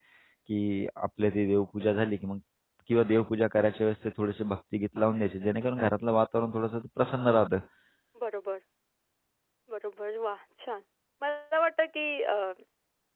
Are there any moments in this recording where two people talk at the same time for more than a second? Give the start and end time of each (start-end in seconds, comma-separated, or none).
none